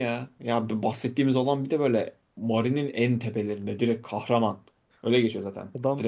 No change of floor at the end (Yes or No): No